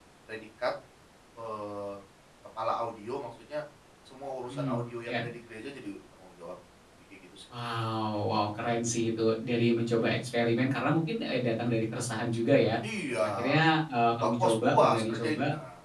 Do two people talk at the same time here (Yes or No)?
Yes